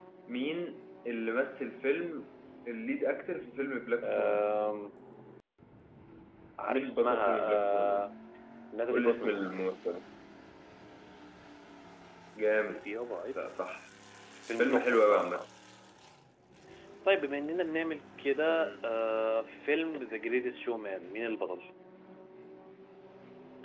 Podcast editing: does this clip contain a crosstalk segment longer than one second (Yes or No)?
Yes